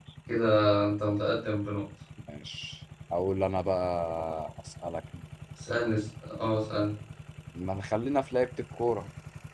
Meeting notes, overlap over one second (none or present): none